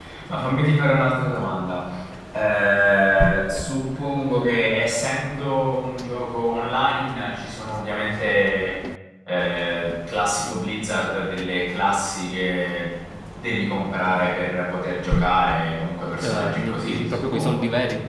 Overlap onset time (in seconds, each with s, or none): 16.2 s